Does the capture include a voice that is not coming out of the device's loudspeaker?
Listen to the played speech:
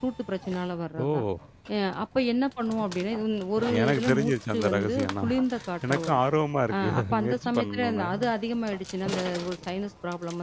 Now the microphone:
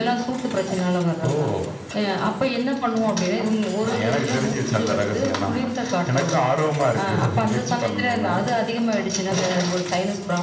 No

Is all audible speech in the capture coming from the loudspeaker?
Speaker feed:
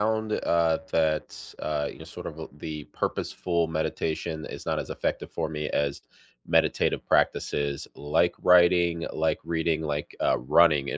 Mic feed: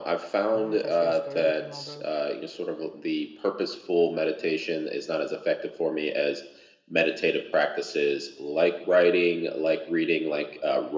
No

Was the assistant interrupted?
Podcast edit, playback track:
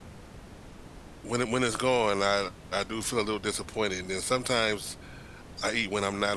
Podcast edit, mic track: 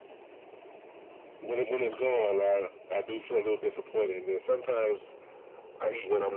No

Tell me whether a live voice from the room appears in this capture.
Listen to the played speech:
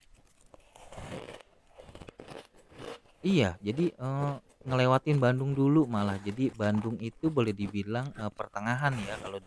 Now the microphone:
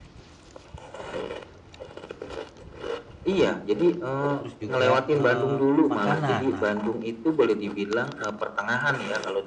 Yes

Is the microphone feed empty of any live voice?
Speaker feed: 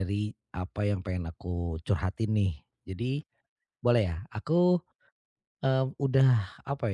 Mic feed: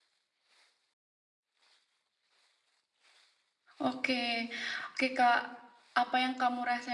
No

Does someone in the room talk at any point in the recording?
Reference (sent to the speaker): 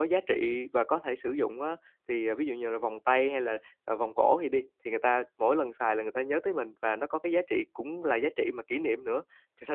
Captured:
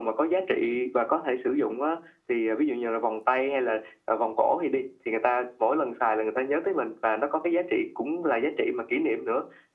No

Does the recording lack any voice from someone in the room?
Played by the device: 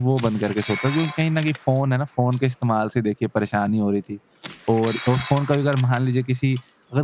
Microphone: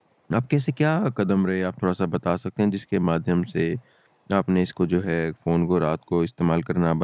No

